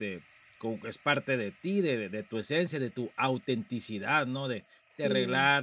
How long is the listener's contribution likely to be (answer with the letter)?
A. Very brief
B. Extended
A